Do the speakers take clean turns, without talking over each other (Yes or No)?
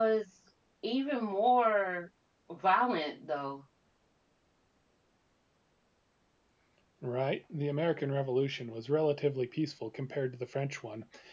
Yes